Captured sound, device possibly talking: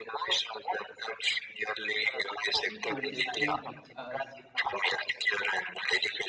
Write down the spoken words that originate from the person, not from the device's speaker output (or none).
people just see it as